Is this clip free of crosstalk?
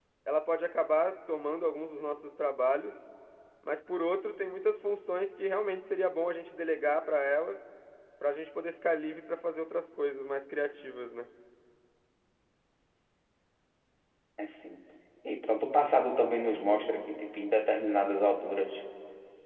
Yes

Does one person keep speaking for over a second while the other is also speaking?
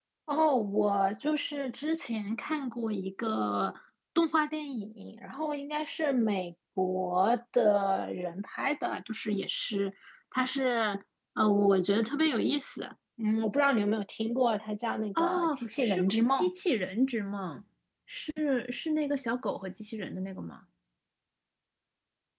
Yes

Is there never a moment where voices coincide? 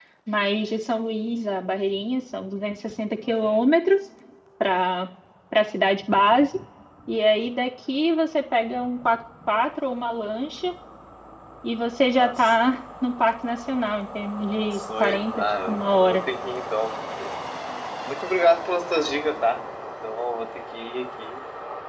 No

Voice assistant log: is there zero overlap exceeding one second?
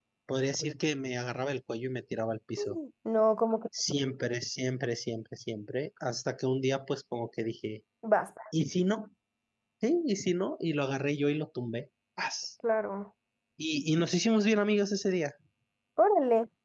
Yes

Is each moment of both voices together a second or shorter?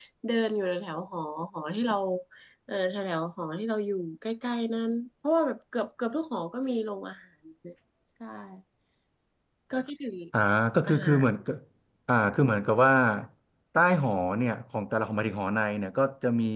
Yes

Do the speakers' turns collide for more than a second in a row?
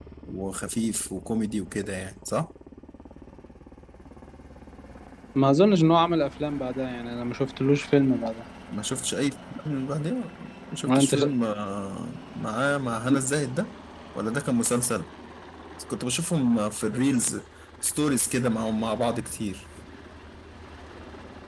No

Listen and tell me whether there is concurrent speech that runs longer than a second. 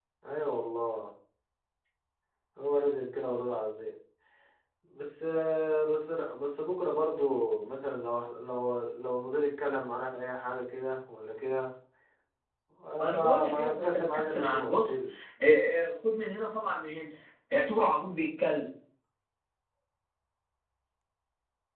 Yes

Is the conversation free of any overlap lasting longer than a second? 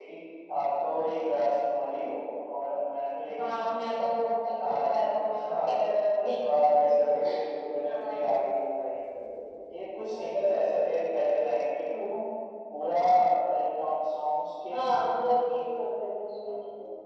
No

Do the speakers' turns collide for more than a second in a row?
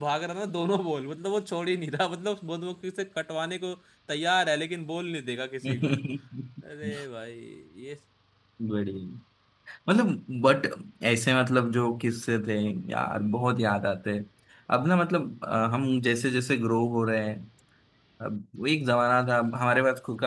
No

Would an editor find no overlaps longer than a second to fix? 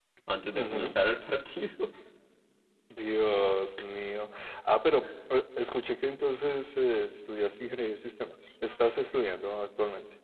Yes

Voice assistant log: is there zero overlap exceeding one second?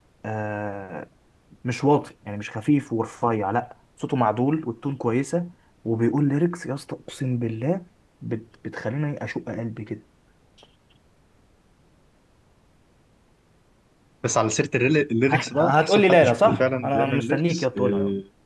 No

